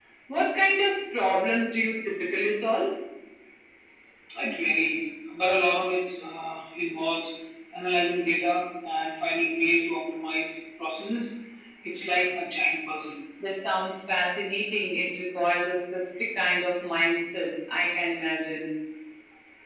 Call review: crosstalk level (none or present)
none